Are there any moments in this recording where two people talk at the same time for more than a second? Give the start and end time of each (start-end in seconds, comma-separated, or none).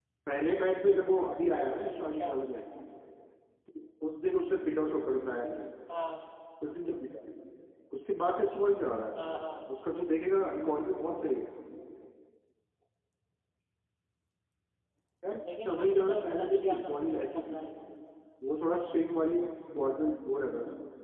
15.7-17.6